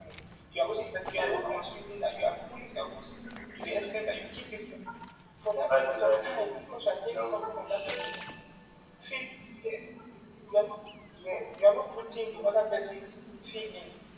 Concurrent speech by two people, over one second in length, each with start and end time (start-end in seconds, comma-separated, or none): 5.6-8.1